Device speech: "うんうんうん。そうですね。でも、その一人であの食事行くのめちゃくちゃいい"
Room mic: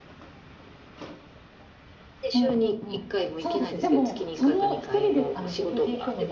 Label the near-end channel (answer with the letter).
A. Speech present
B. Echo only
A